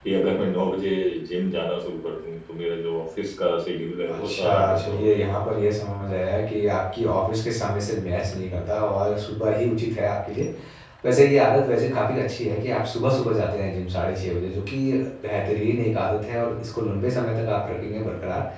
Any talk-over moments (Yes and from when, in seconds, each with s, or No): Yes, from 4.1 s